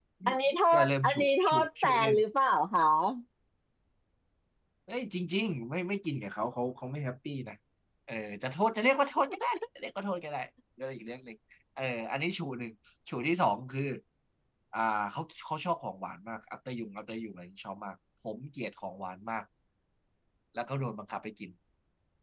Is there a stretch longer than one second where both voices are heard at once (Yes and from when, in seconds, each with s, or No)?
Yes, from 0.8 s